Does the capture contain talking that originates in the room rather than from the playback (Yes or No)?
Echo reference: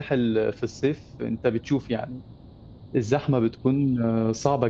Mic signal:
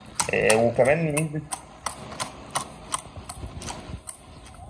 Yes